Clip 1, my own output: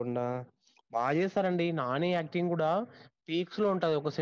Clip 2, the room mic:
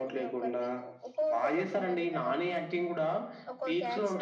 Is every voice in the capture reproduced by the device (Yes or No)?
No